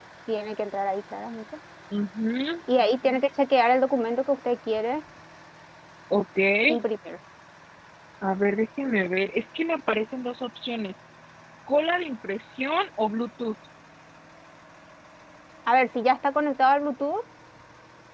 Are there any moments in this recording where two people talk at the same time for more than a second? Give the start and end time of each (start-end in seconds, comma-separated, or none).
none